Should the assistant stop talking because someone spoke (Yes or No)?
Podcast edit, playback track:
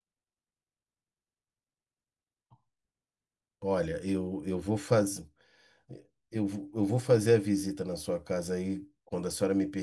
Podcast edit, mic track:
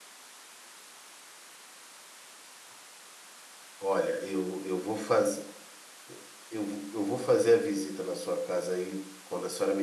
No